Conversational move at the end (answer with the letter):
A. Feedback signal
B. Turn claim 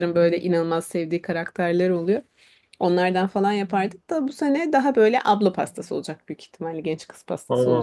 B